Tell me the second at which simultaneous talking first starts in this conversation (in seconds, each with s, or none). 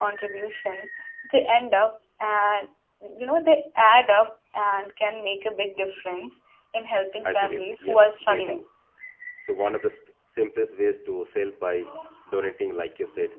7.2 s